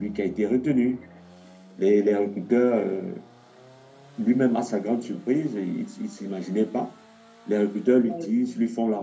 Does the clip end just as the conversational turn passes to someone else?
No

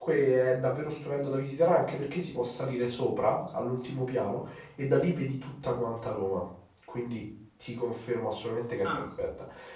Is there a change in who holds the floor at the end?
No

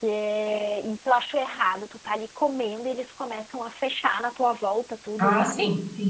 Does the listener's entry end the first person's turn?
Yes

